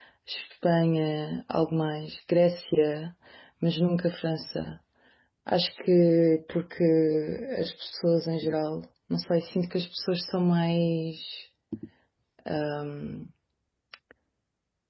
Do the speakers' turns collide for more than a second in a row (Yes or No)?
No